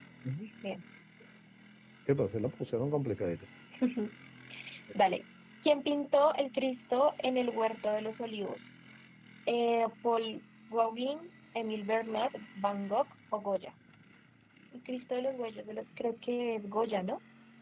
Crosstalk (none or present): none